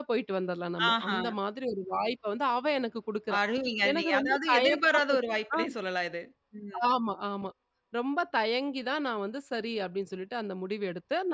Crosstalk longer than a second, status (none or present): present